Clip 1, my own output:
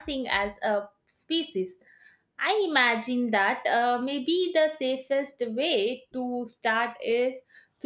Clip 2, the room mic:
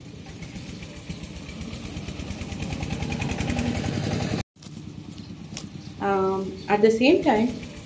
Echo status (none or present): none